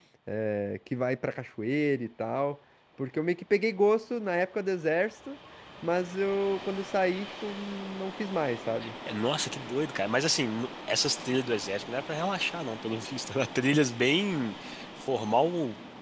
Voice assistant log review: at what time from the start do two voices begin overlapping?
none

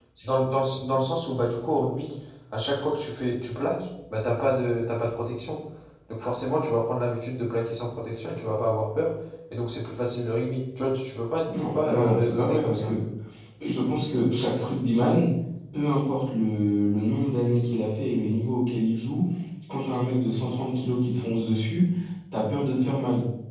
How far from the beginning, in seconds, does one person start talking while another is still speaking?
11.5 s

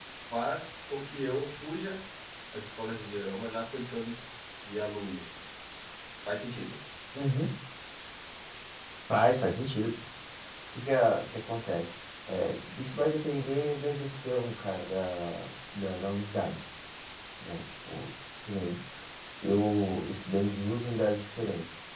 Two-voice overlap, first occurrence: none

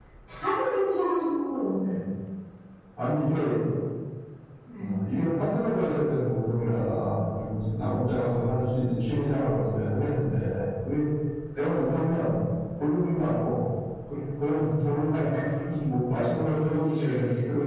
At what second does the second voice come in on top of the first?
none

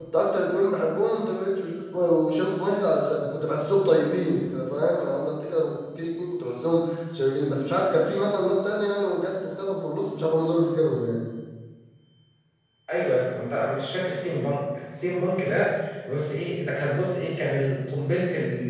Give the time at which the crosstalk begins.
none

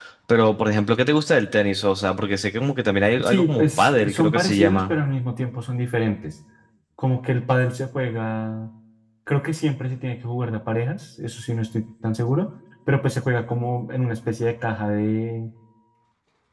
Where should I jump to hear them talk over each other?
3.2 s

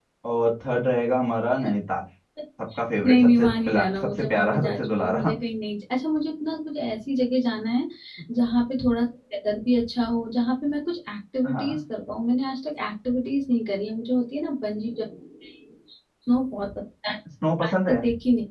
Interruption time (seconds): 3.1 s

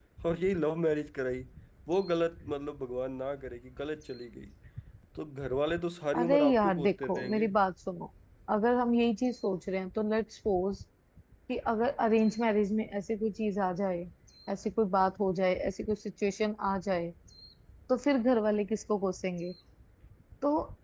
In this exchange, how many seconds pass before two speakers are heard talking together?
6.1 s

